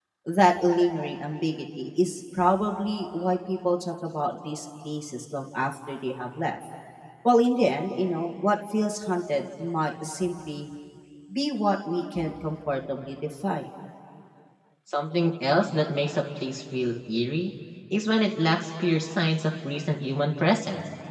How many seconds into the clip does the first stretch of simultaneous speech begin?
none

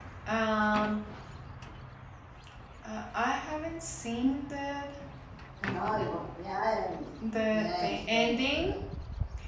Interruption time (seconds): 7.5 s

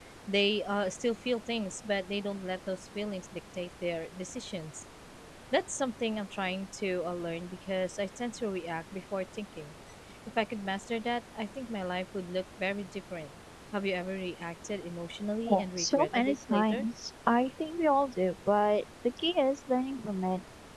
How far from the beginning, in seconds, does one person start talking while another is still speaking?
15.4 s

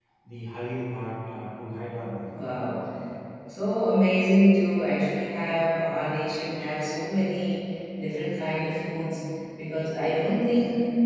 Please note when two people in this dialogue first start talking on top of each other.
none

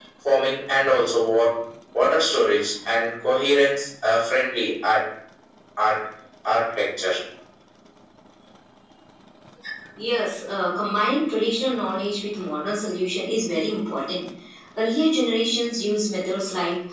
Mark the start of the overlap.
none

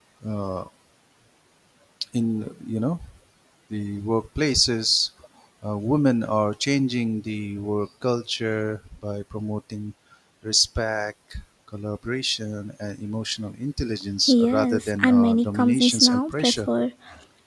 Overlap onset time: 14.3 s

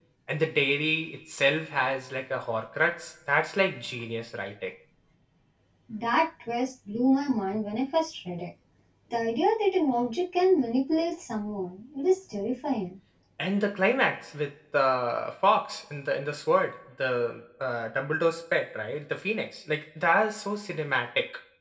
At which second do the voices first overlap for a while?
none

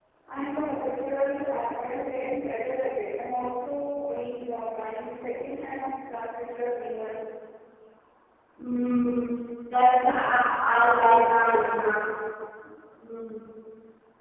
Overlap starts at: none

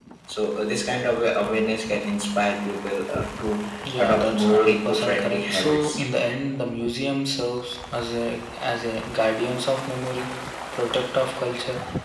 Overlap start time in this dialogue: 3.9 s

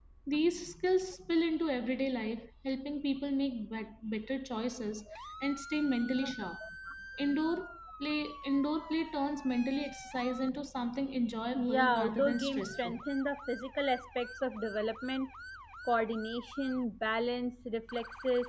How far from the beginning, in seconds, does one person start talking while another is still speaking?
11.5 s

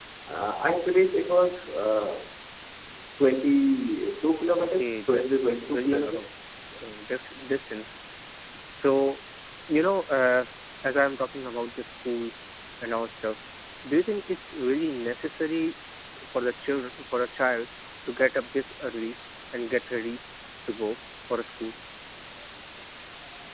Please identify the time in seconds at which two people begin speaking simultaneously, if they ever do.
4.6 s

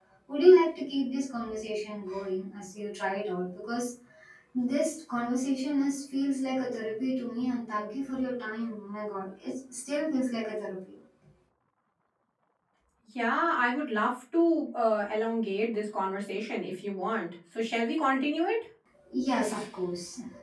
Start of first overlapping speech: none

